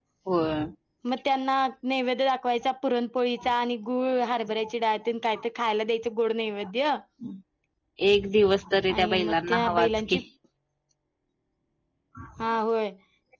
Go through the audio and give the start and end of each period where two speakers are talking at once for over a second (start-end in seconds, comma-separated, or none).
8.9-10.2